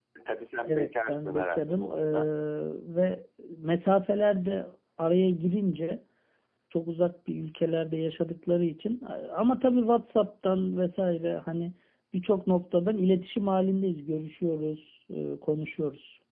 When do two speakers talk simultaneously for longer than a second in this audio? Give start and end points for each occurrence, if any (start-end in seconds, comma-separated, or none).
0.7-2.3